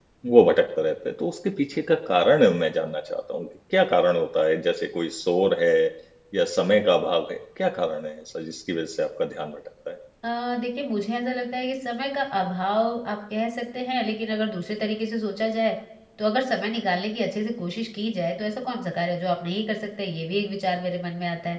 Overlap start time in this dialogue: none

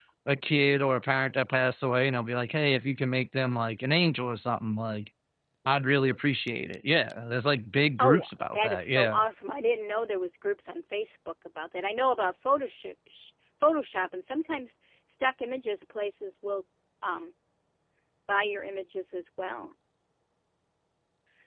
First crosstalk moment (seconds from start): 8.0 s

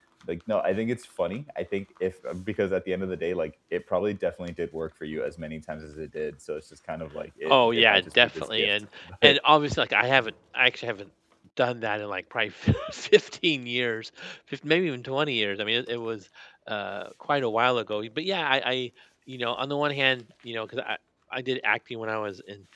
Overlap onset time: 7.4 s

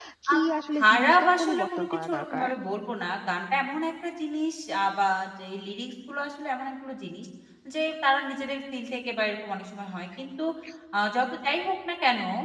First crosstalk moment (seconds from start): 0.8 s

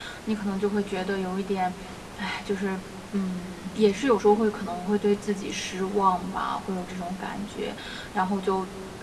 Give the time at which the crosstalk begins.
none

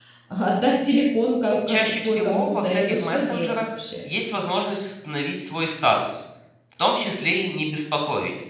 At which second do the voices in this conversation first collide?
1.7 s

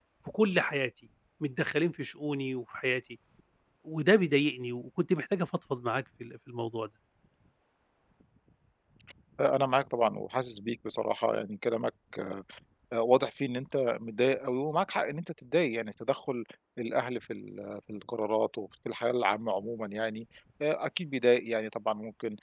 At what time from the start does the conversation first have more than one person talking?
none

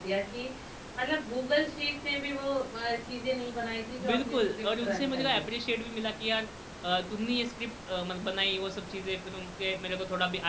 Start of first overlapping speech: 4.0 s

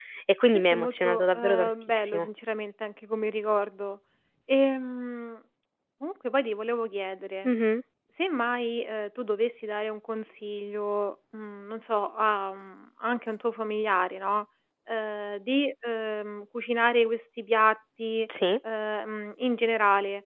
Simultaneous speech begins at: 0.5 s

